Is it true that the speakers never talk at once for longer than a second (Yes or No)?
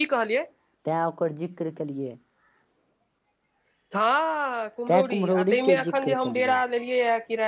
No